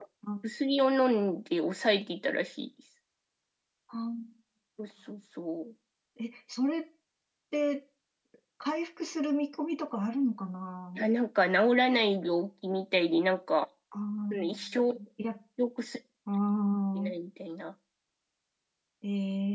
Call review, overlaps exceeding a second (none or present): none